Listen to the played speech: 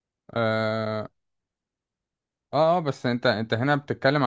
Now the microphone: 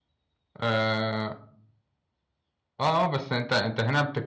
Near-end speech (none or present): none